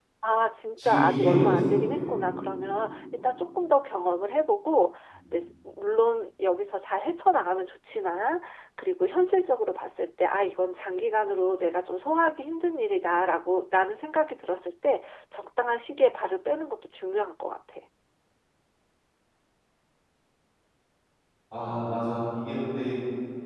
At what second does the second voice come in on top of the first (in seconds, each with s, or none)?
0.8 s